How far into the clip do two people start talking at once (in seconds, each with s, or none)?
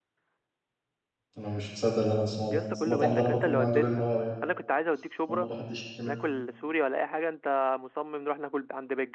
2.5 s